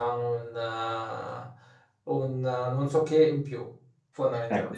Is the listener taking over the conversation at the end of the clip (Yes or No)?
Yes